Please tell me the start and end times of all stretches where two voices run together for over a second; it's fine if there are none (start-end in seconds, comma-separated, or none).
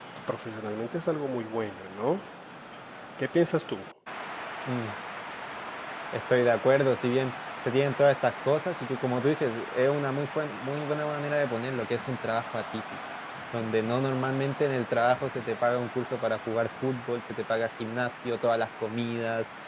none